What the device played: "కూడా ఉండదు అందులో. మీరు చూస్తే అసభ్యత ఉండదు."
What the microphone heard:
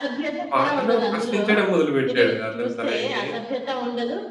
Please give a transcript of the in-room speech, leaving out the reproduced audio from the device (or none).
పాటలో ప్రశ్నించడం మొదలుపెట్టాడు. అతను తనైతే